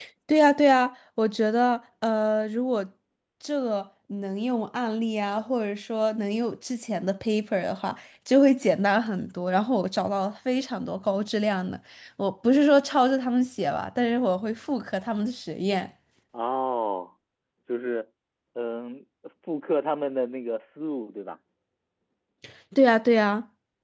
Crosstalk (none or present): none